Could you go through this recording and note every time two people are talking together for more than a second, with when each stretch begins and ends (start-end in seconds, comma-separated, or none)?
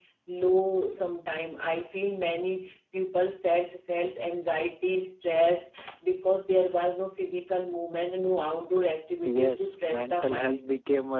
9.2-10.6